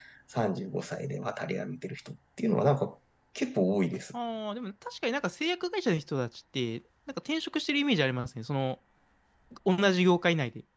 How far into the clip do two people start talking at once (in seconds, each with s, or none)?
none